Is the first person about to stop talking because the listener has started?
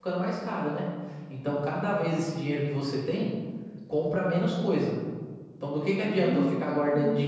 No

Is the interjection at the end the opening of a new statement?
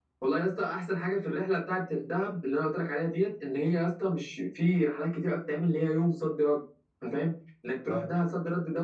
No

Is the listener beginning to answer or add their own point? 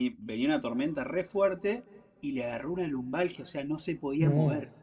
No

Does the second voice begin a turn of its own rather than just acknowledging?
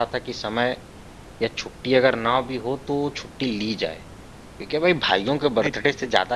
No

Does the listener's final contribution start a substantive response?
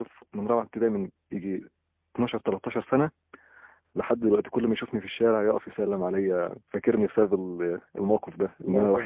No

